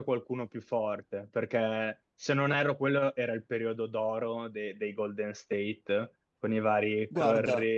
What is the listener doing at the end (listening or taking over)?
listening